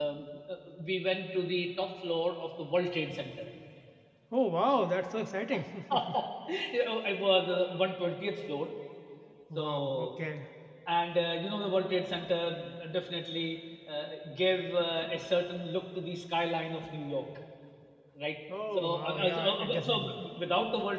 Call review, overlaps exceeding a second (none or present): present